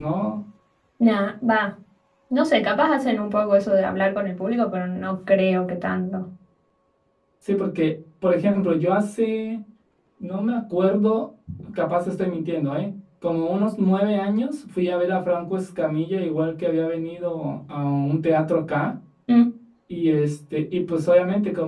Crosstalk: none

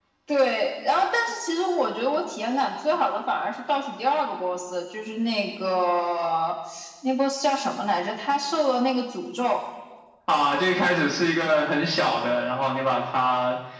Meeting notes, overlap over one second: none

